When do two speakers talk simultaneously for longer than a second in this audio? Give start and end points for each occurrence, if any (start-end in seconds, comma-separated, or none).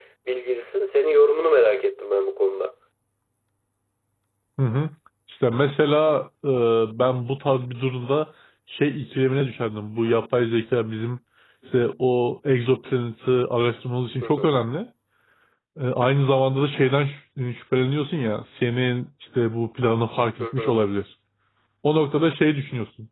none